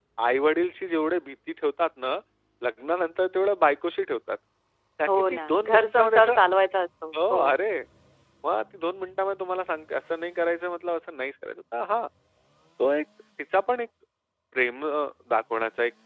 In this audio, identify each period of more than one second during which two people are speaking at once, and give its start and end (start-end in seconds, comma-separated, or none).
5.1-6.3